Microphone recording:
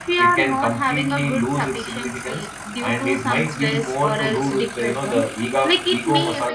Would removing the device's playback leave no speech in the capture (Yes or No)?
Yes